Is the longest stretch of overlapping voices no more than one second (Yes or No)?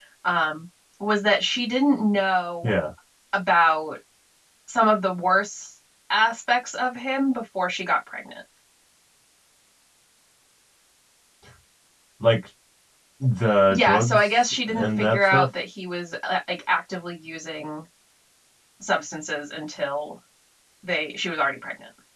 No